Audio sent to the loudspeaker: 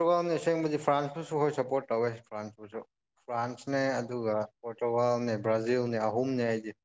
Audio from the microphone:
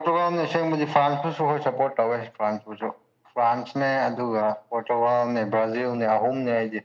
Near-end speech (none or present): none